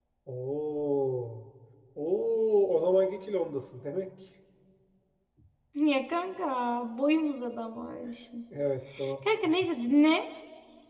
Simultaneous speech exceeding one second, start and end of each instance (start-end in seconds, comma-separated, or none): none